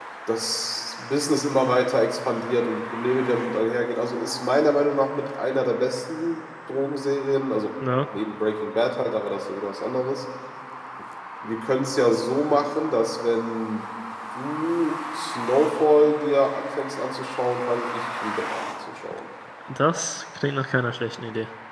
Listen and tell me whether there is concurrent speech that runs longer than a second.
No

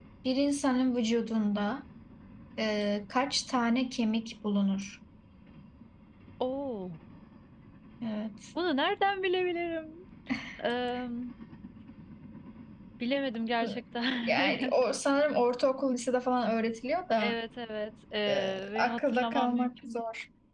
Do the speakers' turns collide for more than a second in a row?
Yes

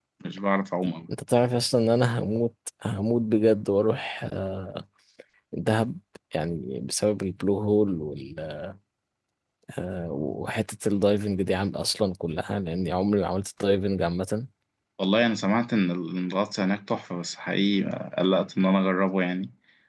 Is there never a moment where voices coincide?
Yes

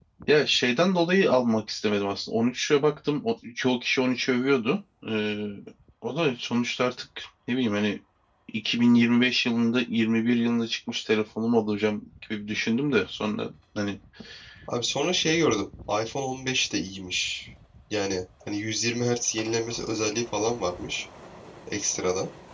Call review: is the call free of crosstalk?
Yes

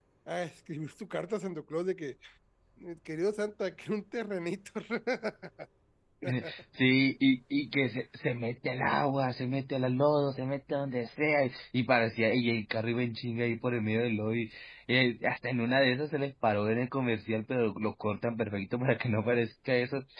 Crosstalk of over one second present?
No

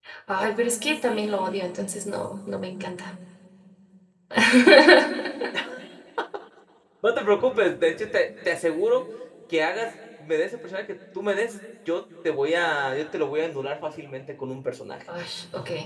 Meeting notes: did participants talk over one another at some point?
No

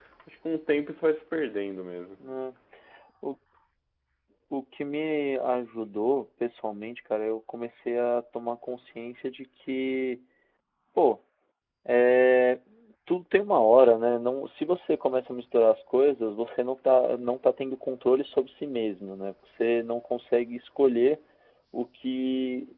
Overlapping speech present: No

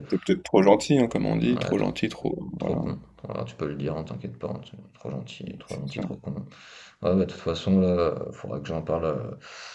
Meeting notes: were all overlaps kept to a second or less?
Yes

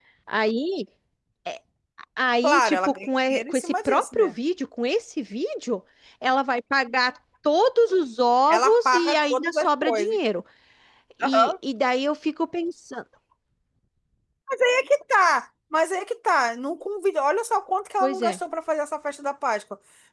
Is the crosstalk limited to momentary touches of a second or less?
No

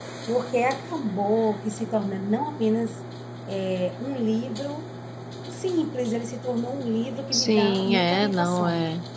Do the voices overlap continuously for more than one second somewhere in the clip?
Yes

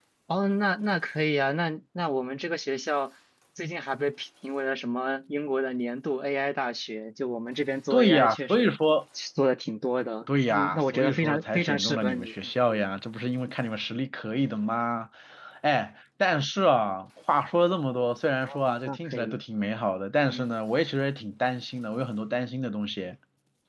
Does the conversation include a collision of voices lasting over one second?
Yes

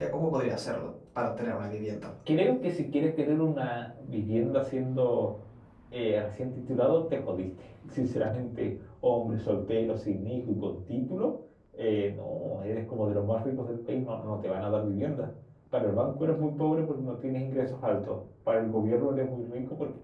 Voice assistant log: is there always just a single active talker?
Yes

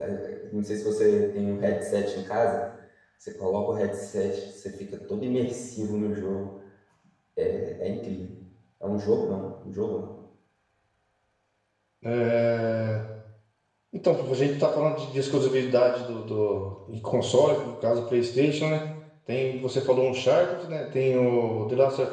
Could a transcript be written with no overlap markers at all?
Yes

